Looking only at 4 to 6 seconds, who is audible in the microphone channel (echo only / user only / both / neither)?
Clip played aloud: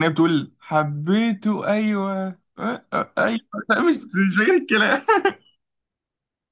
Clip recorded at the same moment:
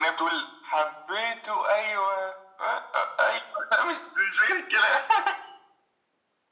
echo only